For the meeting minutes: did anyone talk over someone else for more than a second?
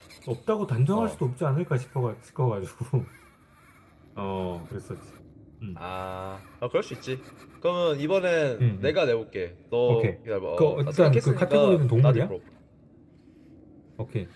Yes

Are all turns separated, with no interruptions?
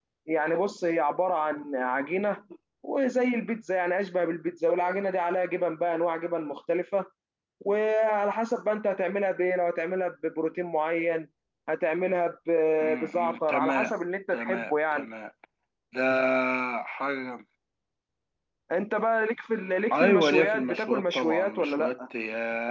No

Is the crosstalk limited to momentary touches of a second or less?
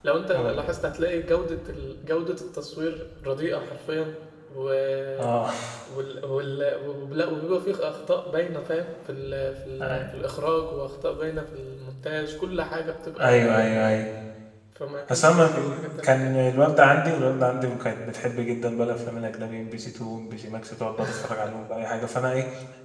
No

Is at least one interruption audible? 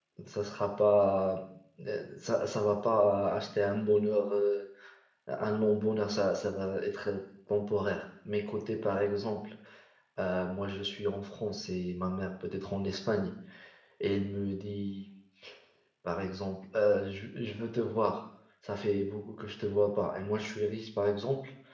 No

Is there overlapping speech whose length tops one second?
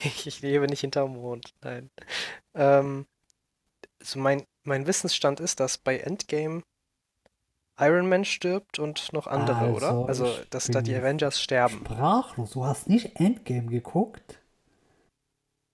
Yes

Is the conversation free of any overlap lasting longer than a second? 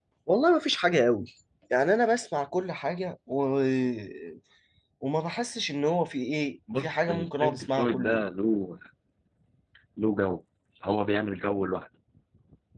No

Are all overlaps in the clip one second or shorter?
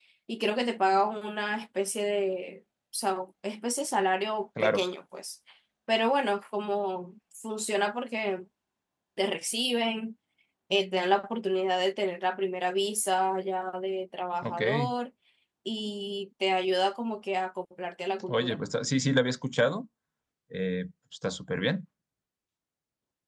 Yes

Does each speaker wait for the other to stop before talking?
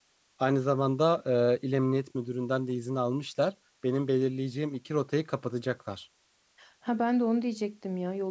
Yes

